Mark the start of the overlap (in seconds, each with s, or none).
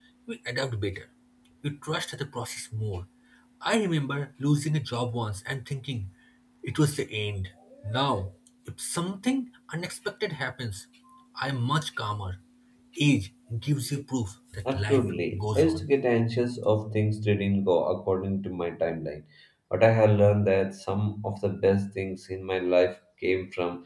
14.5 s